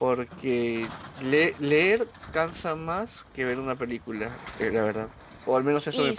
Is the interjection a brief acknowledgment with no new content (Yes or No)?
No